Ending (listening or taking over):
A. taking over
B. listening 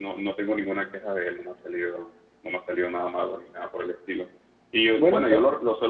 B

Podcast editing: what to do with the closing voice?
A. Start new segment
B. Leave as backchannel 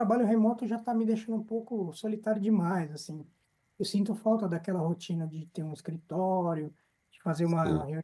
B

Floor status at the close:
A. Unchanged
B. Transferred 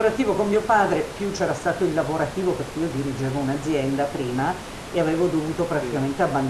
A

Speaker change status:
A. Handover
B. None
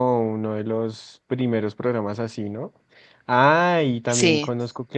B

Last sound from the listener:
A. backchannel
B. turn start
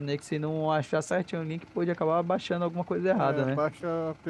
B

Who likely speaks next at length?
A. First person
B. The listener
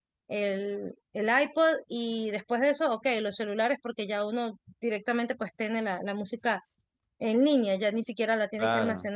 B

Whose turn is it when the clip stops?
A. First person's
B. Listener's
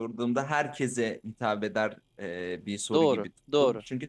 A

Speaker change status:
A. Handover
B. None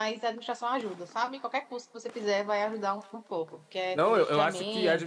A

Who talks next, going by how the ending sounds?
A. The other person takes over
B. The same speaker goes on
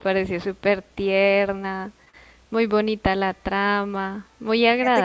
A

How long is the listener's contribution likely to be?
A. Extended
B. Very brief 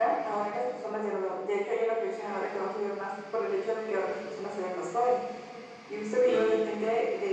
B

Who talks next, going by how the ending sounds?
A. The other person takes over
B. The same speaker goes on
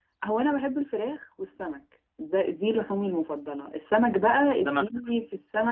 B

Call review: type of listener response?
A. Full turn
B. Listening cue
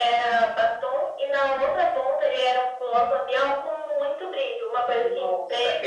A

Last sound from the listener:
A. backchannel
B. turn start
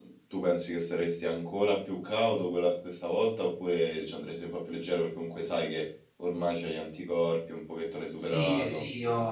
B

